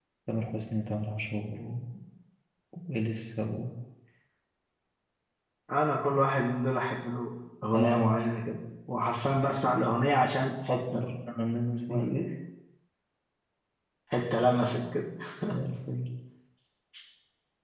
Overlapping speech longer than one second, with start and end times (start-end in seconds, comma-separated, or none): none